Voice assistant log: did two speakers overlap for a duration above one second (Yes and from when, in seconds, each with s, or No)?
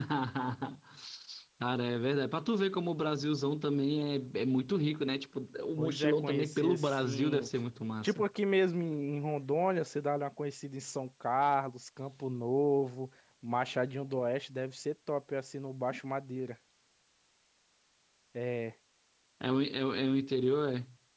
Yes, from 5.8 s